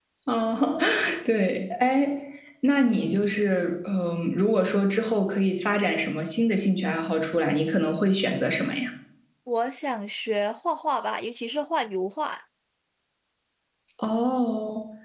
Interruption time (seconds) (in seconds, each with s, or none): none